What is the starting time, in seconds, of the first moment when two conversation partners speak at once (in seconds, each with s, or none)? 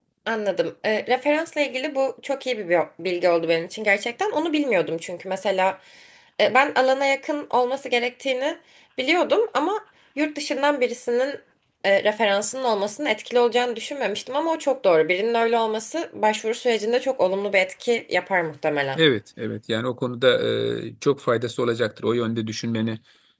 none